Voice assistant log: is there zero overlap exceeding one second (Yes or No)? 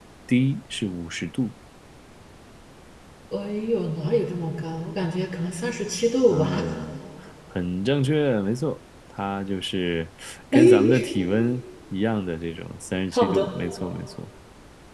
Yes